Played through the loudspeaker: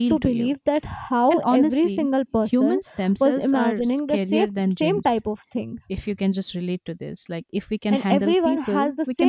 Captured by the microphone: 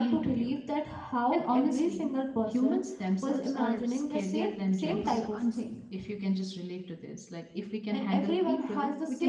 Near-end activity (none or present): present